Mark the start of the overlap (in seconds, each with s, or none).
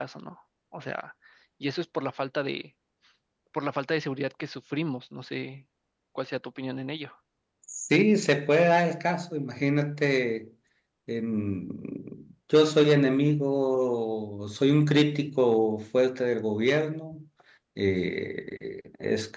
none